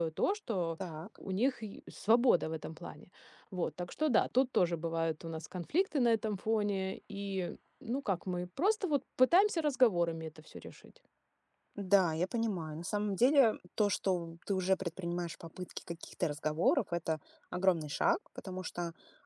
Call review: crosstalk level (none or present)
none